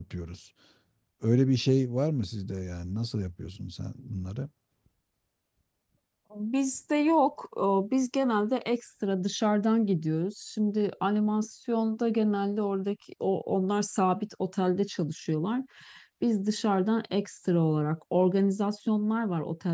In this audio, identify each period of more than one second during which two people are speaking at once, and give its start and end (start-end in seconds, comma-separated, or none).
none